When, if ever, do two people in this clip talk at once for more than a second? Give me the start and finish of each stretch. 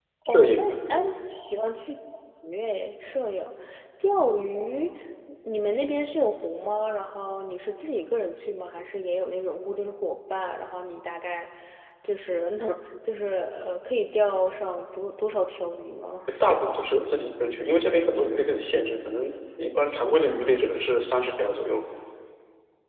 none

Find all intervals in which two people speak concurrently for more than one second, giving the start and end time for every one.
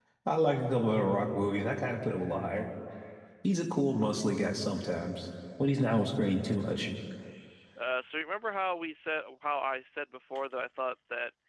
none

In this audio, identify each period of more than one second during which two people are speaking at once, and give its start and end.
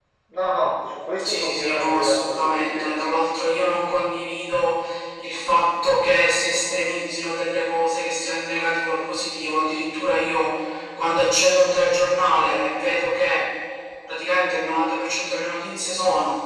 1.2-2.9

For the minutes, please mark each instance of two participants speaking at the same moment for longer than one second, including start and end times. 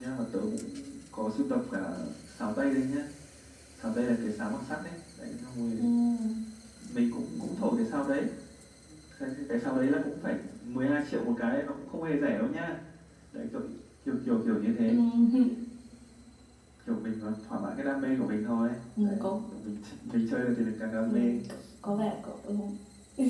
none

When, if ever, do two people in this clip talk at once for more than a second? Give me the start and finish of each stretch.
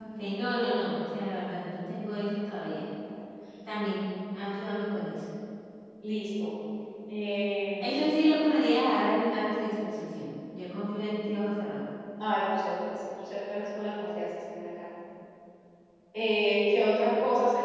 none

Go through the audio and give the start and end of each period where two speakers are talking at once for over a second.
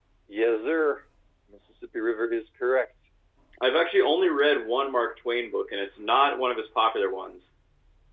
none

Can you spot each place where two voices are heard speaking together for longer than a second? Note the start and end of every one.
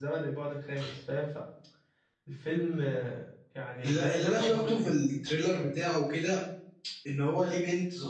3.8-5.1

